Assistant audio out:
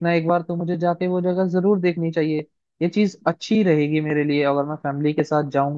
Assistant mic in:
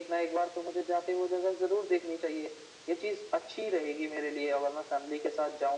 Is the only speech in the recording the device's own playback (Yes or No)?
Yes